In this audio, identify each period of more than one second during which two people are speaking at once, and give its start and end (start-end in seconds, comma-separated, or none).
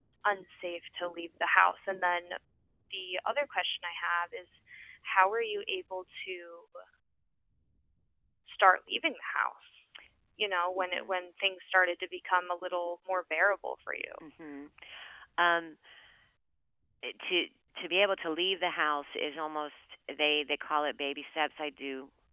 none